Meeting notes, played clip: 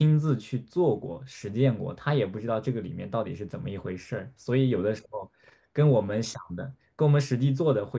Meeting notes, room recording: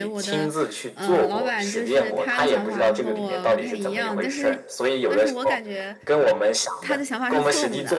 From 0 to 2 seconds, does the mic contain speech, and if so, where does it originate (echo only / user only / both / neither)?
both